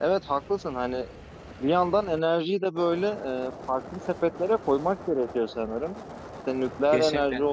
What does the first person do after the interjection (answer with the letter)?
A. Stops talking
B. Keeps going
B